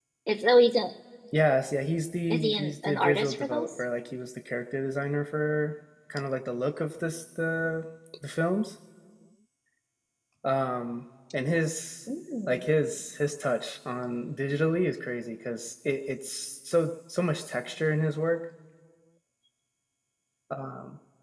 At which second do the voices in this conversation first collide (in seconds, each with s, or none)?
2.3 s